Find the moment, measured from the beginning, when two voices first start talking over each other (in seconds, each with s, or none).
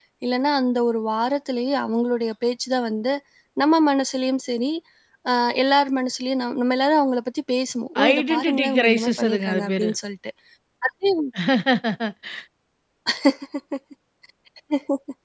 8.0 s